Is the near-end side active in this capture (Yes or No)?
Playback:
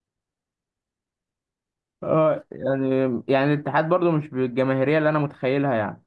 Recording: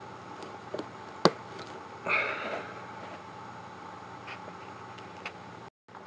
No